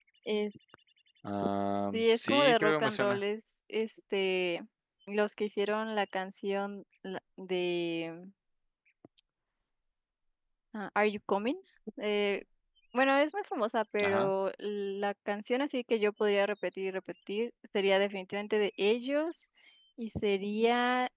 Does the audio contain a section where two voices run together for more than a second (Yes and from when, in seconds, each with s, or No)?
Yes, from 1.9 s